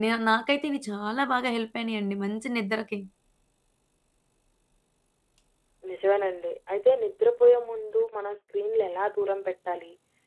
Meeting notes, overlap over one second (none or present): none